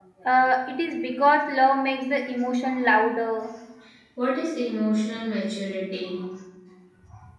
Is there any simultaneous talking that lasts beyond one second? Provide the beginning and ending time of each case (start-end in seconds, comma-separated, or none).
none